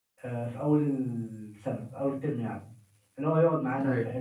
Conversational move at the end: listening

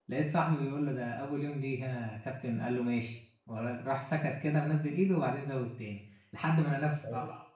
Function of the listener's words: listening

